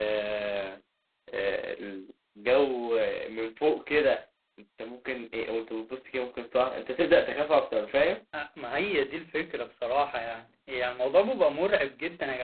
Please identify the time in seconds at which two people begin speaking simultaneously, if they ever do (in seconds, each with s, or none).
none